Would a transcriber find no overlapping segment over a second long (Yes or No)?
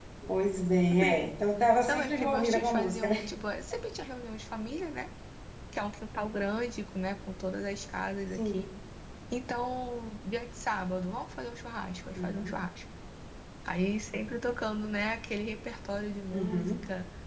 No